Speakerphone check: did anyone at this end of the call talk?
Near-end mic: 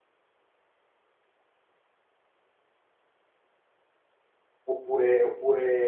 Yes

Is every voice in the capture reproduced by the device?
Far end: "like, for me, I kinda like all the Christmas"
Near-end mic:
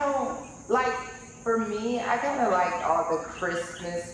Yes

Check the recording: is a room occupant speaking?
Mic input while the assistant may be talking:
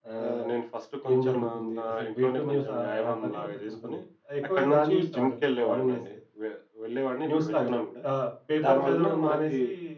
Yes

